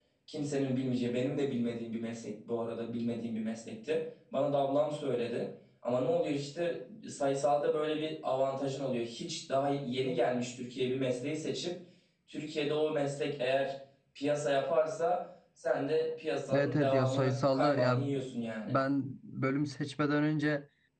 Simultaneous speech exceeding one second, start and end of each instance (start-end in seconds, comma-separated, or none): 16.5-18.0